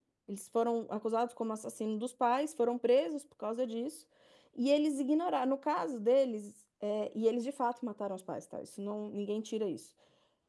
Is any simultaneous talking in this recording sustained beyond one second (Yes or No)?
No